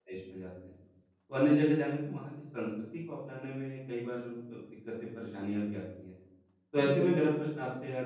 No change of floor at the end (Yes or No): Yes